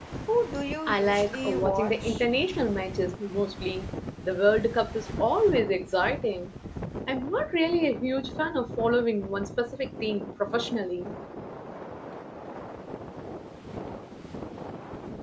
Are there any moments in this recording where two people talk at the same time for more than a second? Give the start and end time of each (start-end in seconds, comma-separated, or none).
0.9-2.2